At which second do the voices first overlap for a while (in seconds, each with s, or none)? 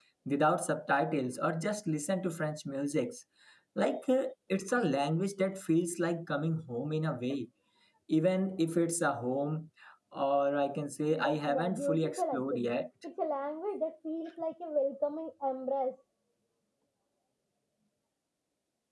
11.1 s